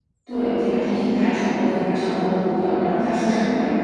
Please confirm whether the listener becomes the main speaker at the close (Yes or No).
Yes